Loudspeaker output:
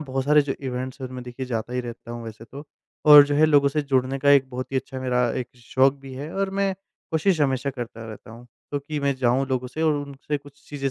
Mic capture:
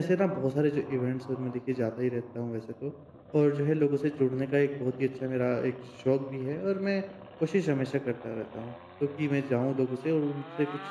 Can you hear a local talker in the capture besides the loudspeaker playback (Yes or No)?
No